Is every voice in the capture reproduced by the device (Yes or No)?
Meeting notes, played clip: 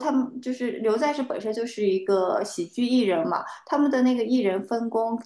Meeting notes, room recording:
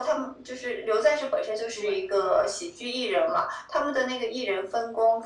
No